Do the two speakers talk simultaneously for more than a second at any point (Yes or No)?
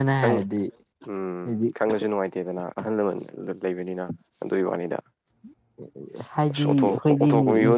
Yes